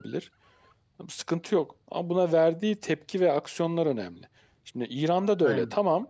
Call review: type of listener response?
listening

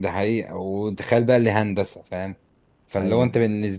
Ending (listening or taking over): listening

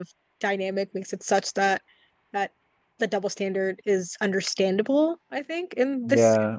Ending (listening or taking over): taking over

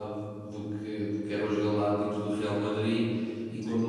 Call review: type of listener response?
listening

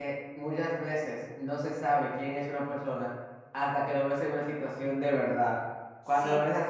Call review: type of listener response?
listening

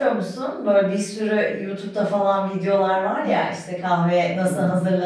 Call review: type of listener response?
listening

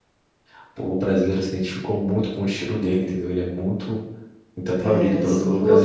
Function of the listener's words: taking over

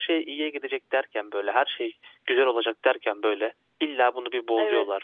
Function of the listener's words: listening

